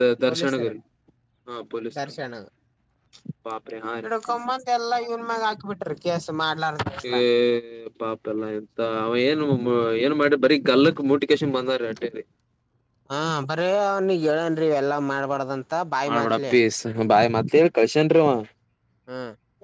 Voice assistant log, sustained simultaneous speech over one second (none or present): none